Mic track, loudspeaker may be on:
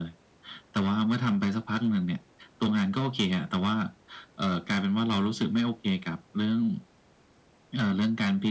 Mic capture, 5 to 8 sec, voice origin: echo only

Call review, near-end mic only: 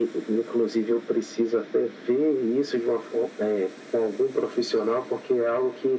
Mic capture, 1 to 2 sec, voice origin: echo only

